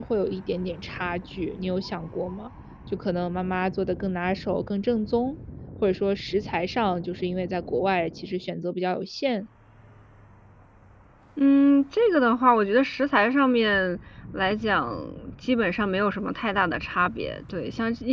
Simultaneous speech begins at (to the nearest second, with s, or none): none